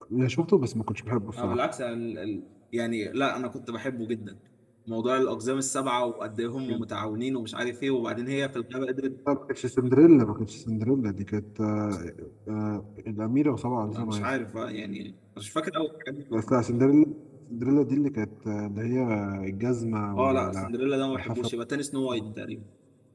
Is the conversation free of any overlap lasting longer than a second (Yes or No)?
Yes